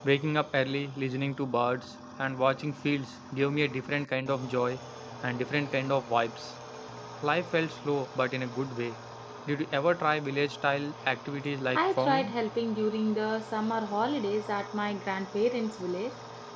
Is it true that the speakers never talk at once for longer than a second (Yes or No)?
Yes